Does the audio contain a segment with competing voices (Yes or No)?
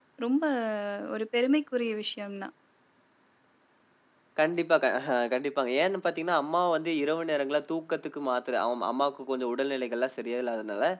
No